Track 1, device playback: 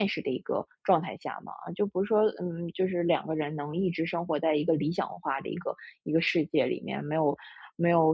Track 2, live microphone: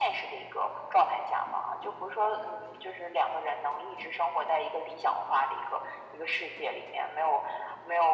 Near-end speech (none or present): none